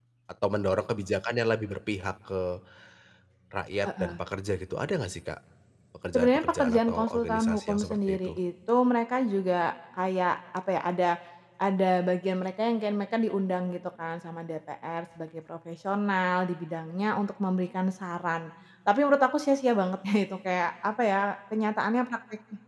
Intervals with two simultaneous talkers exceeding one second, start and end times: 6.1-8.3

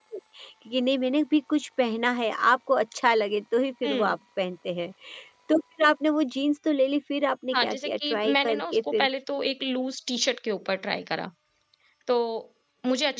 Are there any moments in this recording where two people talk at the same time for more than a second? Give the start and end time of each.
7.5-9.1

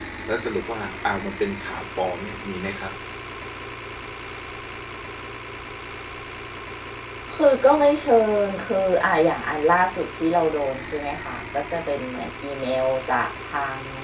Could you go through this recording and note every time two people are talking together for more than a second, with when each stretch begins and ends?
none

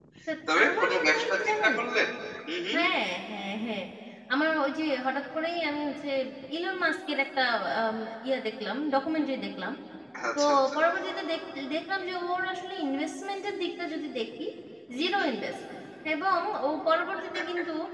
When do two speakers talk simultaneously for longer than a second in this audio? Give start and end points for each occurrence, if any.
0.5-1.8

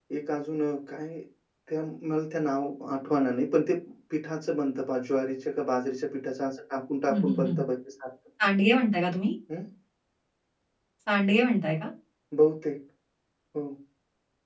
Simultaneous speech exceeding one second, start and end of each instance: none

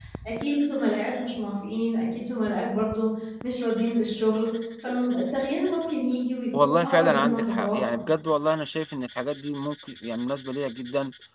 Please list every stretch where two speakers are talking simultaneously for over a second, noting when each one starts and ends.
6.6-8.0

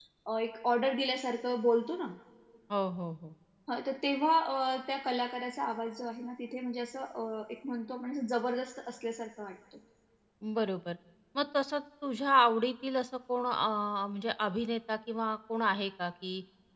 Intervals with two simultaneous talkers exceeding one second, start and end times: none

